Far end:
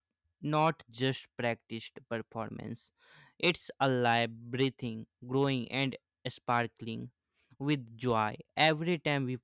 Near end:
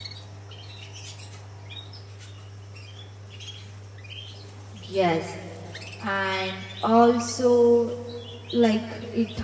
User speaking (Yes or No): Yes